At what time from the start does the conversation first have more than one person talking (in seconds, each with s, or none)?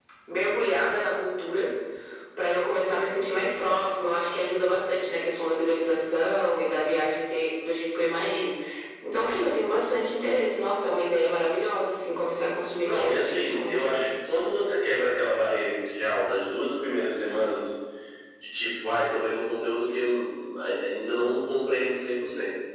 12.8 s